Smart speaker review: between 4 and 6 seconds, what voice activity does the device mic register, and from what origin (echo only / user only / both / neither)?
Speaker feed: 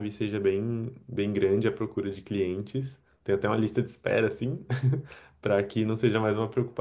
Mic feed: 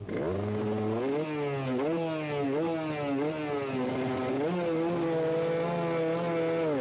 neither